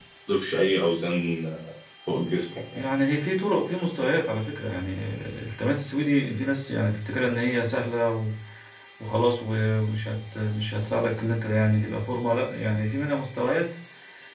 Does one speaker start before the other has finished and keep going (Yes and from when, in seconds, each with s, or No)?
No